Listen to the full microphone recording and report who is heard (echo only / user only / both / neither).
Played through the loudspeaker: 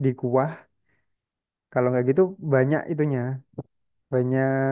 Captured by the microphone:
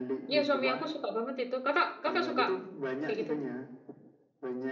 both